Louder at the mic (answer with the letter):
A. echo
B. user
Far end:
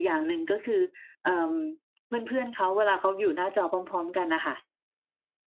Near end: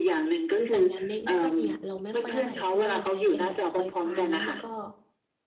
A